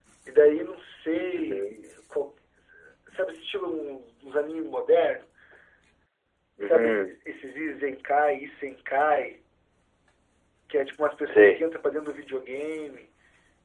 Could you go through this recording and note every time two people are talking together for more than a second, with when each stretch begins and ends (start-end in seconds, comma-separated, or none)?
none